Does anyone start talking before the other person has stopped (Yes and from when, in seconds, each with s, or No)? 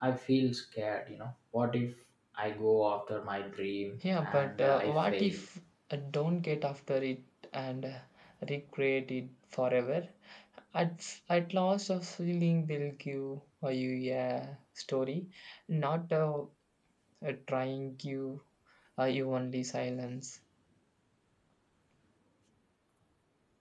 Yes, from 4.0 s